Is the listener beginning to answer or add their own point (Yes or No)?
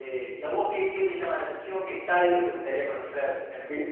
Yes